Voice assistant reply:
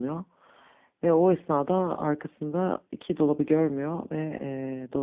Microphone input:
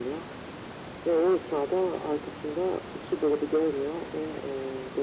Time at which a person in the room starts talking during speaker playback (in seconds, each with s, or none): none